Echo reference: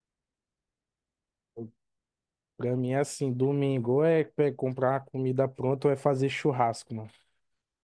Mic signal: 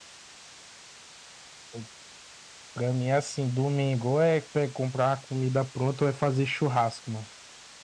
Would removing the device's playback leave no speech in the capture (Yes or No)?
Yes